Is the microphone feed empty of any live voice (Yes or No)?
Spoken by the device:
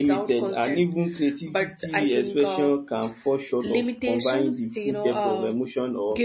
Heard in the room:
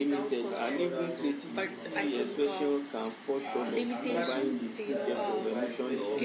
No